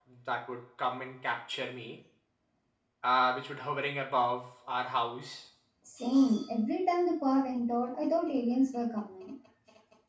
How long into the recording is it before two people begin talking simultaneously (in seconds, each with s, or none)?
none